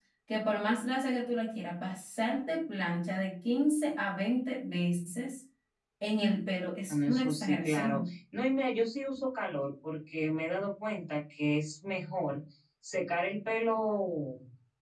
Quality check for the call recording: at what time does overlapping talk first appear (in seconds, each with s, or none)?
6.9 s